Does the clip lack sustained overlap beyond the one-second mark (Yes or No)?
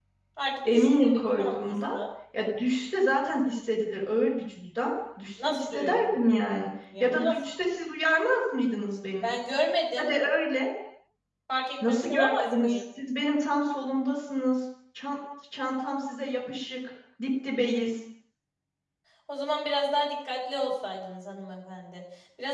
No